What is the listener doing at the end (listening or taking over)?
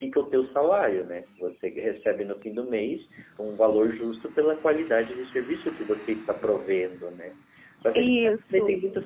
listening